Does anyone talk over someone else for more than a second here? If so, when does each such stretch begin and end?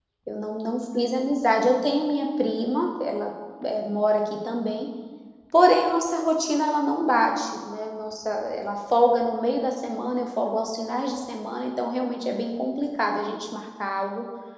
none

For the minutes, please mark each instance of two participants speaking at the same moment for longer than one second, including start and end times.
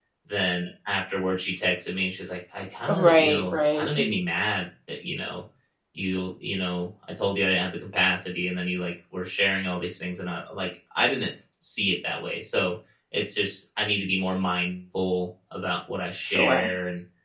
2.9-4.1

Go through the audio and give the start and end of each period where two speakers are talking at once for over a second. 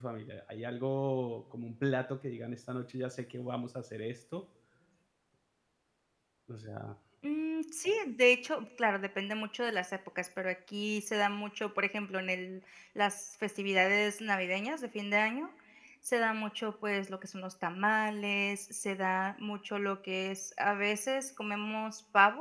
none

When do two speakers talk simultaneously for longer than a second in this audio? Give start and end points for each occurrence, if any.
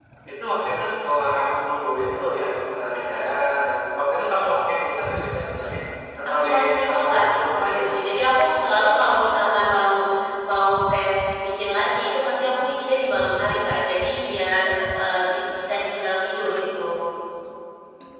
6.4-8.0

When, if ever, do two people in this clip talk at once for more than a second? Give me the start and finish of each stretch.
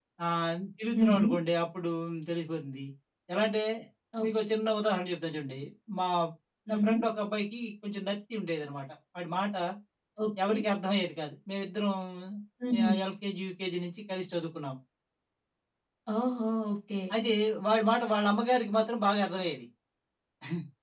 none

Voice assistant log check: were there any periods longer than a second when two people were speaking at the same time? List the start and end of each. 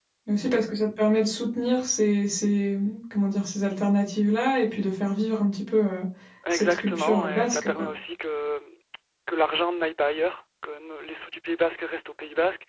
6.5-7.9

